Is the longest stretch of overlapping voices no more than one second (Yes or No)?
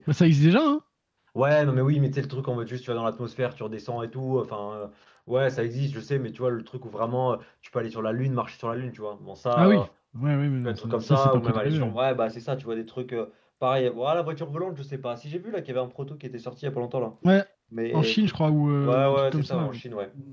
No